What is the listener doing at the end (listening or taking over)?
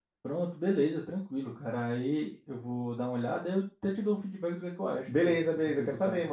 taking over